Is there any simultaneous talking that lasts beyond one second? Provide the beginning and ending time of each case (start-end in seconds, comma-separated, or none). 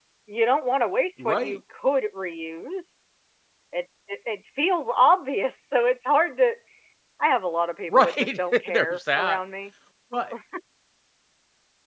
7.9-9.4